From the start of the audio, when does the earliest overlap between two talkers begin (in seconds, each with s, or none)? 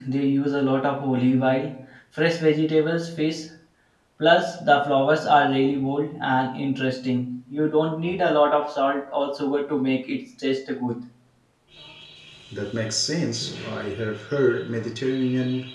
none